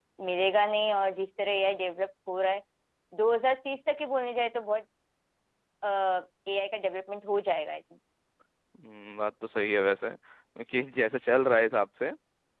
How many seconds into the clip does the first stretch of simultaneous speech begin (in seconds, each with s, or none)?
none